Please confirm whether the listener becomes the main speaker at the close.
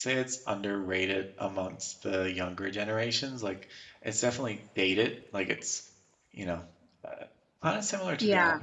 No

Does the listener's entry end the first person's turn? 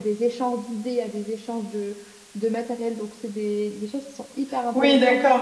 Yes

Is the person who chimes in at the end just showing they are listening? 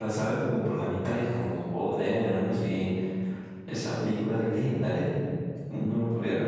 No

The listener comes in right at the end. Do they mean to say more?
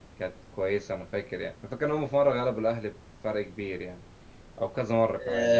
Yes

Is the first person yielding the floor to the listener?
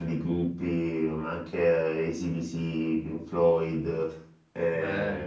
No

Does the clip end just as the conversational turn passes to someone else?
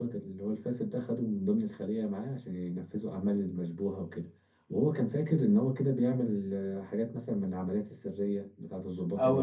Yes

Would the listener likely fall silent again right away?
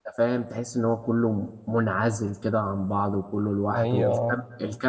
Yes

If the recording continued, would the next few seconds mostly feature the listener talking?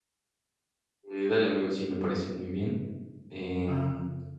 No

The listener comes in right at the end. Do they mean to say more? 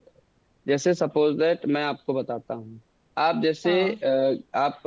No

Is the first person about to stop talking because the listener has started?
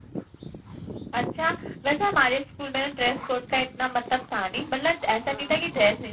No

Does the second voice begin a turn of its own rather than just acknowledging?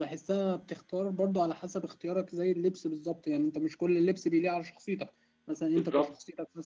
No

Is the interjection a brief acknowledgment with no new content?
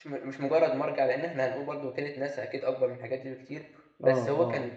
Yes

